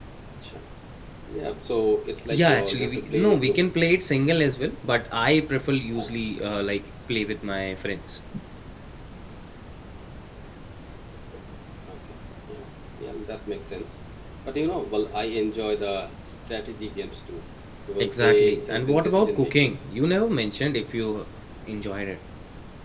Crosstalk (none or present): present